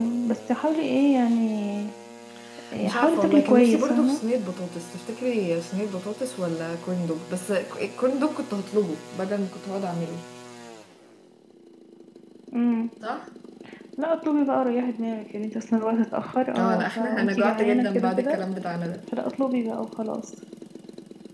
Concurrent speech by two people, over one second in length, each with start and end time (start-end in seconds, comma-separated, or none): 2.8-4.2, 16.6-18.4